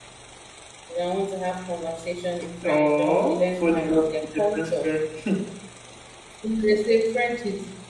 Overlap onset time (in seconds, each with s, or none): 2.6 s